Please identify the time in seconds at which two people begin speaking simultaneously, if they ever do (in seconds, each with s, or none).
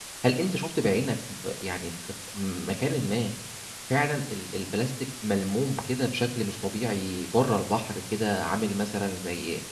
none